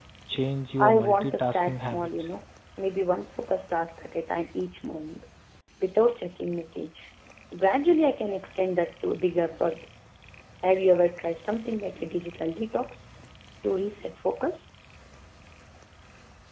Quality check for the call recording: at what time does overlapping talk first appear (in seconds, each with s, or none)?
0.8 s